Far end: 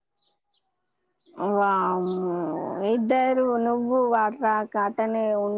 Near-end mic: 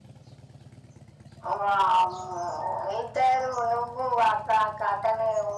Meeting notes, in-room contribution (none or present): none